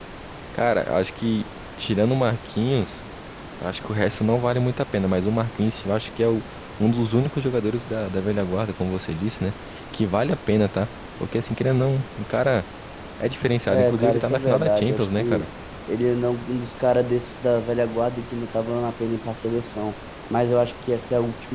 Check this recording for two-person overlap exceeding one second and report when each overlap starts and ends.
13.7-15.4

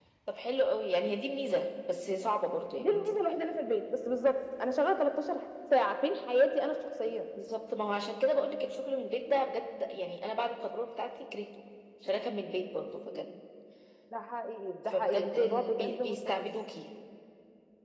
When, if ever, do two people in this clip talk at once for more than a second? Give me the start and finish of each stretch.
14.8-16.5

